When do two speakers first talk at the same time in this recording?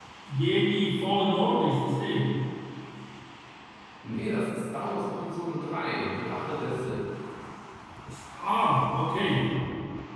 none

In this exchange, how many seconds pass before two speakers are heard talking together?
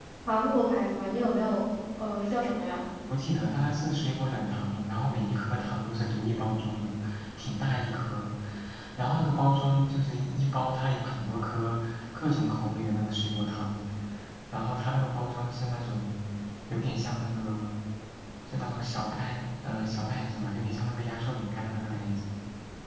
none

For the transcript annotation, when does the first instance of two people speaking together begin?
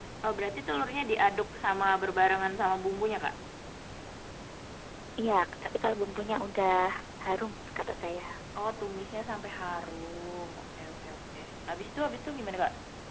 none

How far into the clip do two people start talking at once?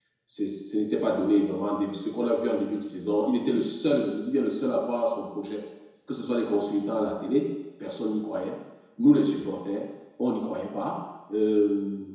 none

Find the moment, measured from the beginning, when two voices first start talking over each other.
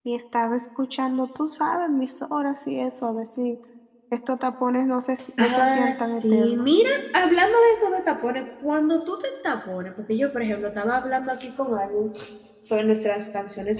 5 s

